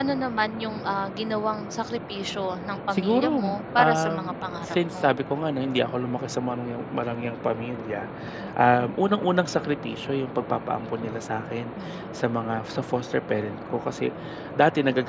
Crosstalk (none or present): present